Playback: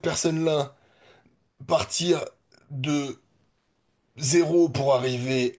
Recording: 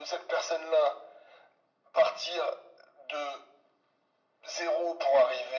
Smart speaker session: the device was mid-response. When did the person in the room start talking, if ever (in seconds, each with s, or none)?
none